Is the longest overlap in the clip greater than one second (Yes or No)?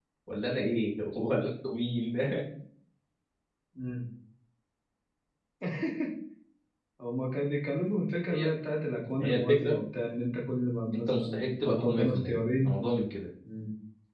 Yes